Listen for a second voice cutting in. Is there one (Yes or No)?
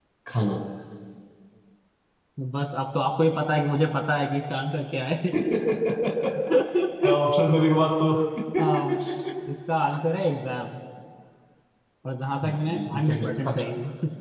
Yes